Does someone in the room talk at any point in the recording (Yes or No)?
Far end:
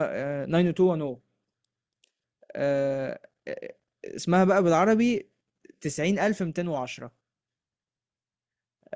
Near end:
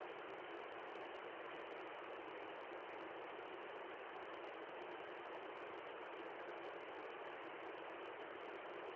No